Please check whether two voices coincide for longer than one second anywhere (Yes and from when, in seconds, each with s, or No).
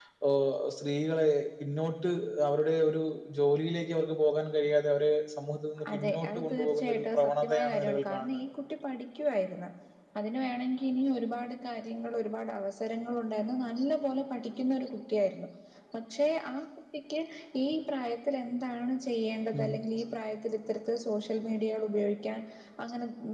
Yes, from 5.8 s